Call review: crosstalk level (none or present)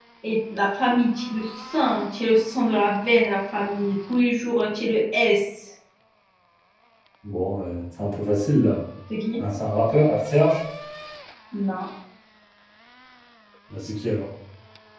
none